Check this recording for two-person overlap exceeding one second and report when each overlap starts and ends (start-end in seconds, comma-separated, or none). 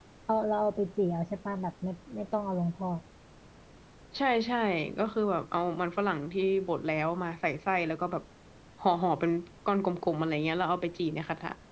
none